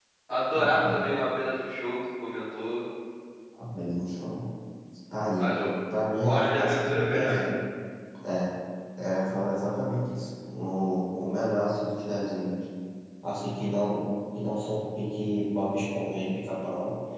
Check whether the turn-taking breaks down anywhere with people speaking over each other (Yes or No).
Yes